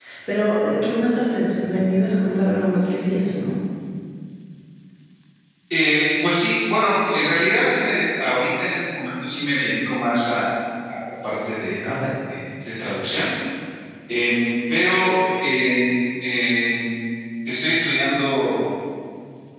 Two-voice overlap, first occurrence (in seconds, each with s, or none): none